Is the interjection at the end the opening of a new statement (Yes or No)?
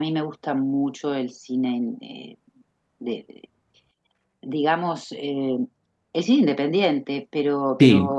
No